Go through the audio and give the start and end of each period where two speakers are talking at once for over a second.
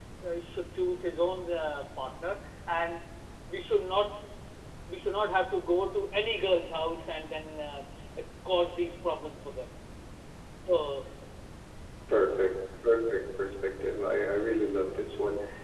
none

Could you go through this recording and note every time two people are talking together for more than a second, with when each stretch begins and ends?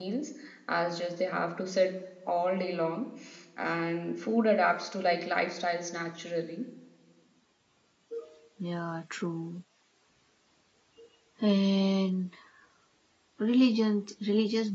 none

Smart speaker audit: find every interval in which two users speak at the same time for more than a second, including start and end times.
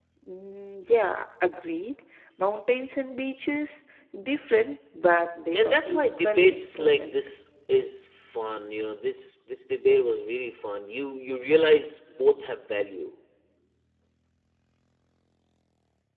5.5-7.2

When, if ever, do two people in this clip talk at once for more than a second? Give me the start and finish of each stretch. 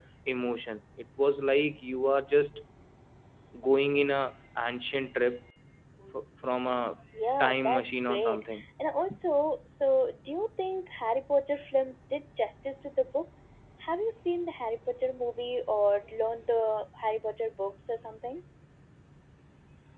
7.4-8.6

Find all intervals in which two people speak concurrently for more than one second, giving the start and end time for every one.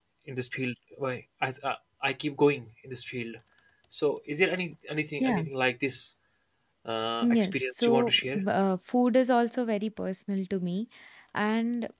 7.2-8.4

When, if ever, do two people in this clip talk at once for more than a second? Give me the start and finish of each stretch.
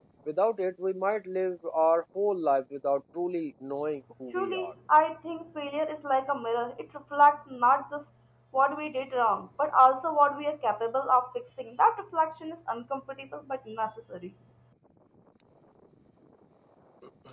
none

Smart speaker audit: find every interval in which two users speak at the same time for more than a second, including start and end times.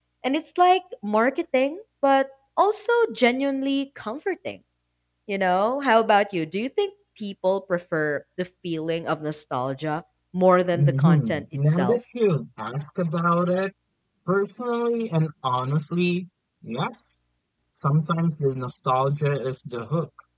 10.7-12.0

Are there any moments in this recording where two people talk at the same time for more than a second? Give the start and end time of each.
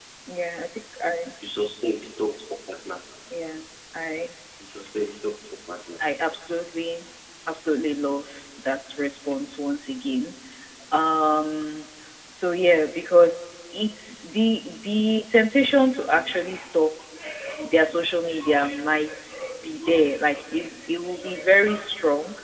none

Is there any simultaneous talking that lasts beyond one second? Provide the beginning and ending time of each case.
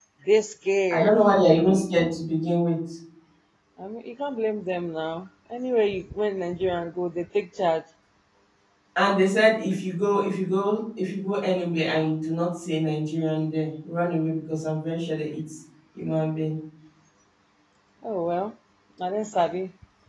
none

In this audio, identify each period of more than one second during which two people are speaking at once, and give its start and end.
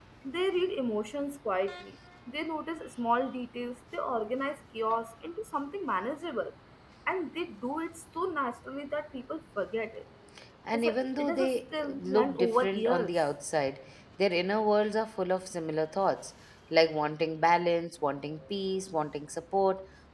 10.7-13.2

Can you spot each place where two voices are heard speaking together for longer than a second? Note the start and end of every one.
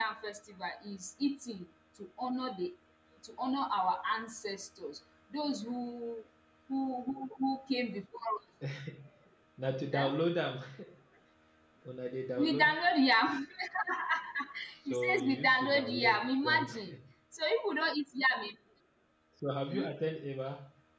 14.9-16.9

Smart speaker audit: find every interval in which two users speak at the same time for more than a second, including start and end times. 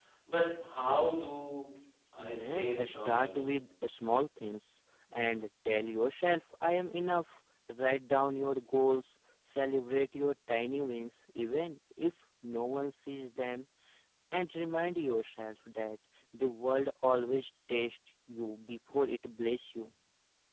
2.2-3.5

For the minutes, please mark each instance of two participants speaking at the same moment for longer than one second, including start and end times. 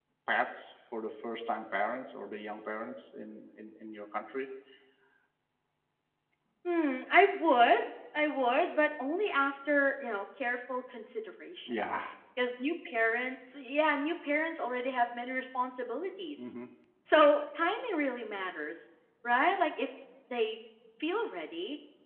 none

